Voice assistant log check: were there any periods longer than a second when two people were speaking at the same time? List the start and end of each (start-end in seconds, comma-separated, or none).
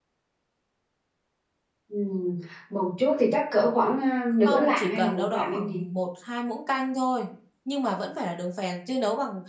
4.4-5.8